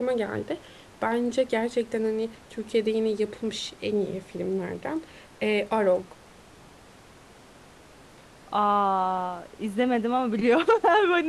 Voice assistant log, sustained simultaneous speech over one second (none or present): none